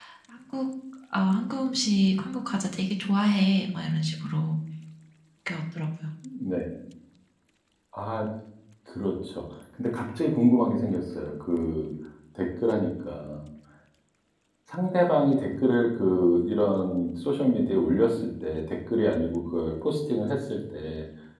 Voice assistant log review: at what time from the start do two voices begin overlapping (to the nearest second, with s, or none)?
none